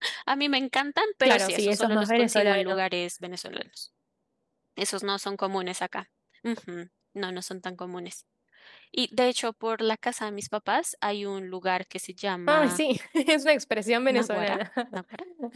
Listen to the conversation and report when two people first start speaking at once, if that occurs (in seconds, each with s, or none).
1.2 s